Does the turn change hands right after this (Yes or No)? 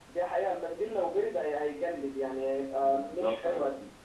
Yes